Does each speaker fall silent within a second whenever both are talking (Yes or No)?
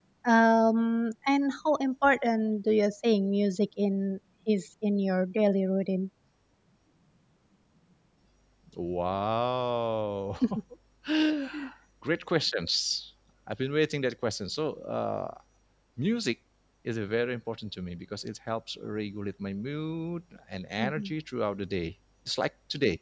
Yes